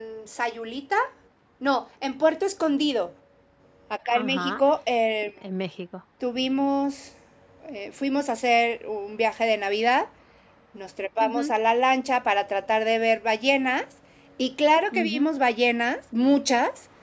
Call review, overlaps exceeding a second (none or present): none